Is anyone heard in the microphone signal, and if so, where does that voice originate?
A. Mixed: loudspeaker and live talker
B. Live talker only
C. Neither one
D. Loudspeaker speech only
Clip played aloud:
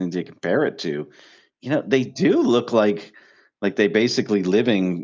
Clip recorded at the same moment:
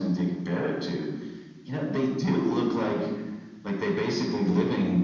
D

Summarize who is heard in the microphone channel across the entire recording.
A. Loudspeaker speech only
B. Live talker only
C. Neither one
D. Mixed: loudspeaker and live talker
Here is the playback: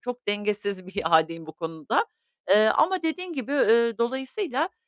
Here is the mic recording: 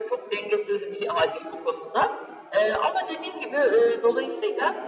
D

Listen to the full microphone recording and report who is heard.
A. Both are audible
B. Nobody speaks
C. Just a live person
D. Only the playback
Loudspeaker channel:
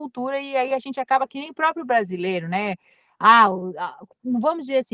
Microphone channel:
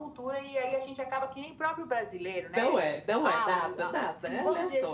A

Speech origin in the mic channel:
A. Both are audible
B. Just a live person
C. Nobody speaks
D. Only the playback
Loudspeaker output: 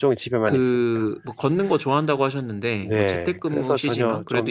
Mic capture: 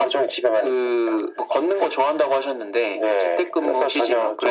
D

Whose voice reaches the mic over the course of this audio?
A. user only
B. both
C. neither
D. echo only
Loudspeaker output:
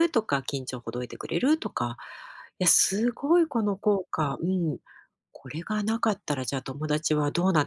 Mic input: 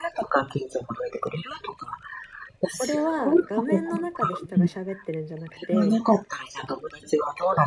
B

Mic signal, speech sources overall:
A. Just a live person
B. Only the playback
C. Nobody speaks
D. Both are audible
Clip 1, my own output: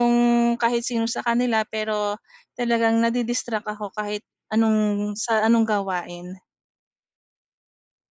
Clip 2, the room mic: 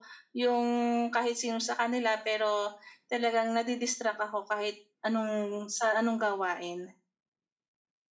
B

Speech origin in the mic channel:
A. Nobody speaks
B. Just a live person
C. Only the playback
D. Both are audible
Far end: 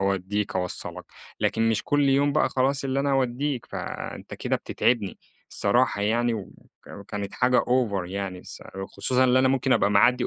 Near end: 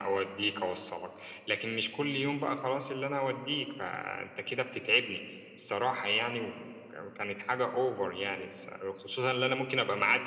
C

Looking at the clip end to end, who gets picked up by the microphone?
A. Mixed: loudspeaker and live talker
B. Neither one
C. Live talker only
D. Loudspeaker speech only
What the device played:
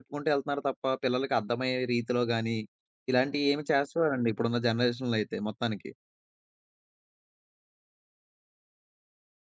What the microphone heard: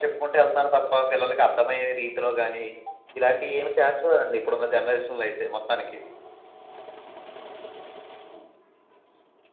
D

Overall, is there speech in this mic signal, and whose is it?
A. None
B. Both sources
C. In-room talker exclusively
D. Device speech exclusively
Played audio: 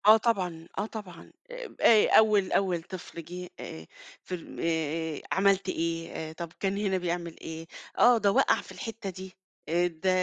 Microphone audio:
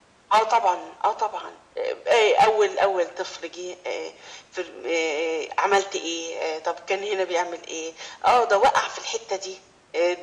D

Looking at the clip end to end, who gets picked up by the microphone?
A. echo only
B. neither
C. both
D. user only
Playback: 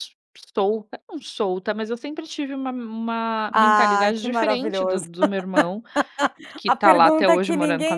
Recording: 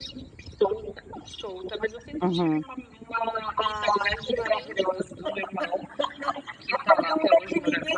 C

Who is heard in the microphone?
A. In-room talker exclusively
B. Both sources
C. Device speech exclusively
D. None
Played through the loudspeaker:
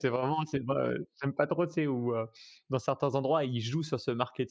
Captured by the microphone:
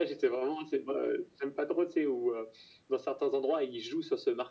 C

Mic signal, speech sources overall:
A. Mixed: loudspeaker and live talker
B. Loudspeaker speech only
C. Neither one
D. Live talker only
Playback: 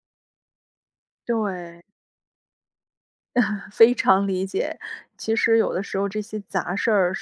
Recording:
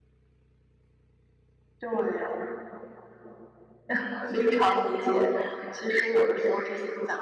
B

